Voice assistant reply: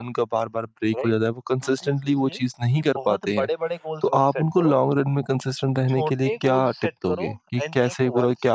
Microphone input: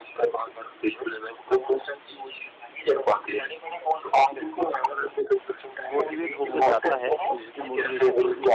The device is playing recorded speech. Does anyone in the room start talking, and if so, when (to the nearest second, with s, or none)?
6 s